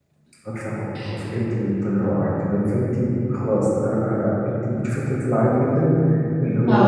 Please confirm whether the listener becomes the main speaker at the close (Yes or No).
No